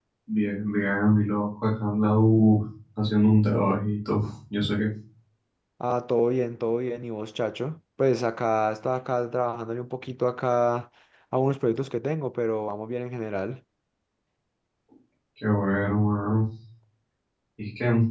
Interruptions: none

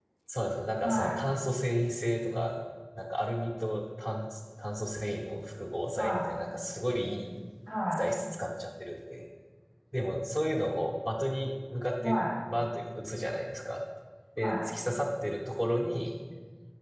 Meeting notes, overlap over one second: none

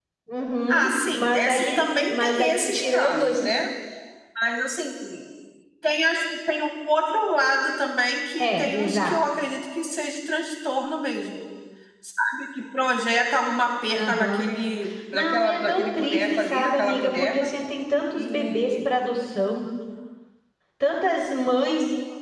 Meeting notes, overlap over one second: present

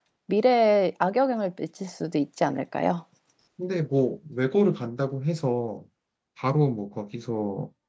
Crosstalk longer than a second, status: none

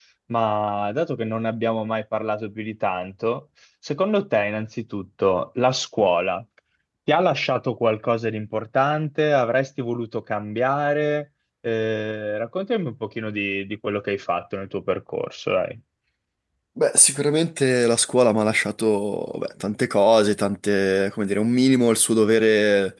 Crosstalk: none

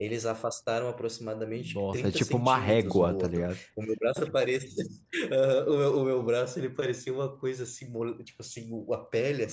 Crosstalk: present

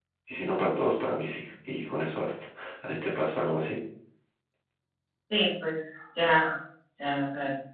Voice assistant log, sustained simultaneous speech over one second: none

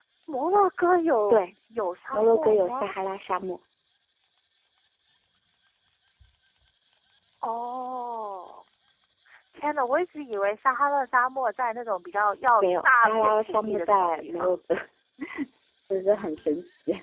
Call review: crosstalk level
present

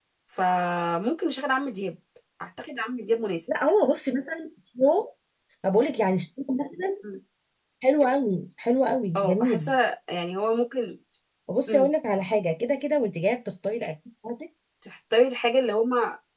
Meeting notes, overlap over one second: none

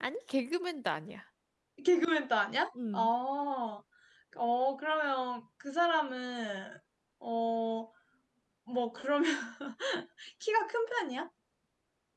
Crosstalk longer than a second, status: none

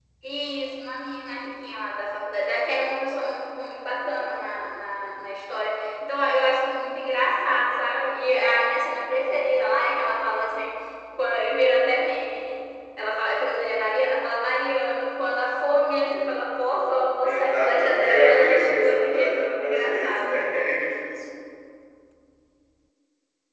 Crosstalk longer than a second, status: present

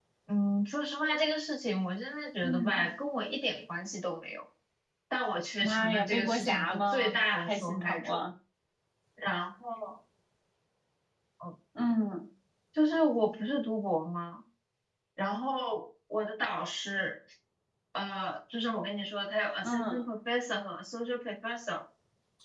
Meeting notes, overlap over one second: present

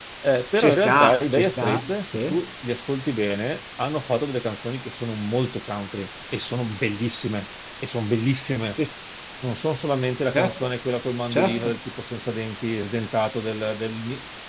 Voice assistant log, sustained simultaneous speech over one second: present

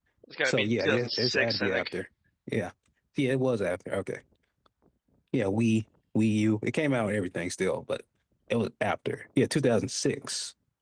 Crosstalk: present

